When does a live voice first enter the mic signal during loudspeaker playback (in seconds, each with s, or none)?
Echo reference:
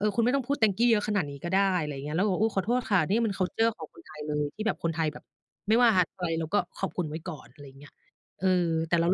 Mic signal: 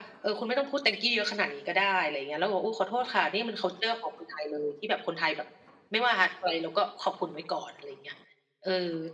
none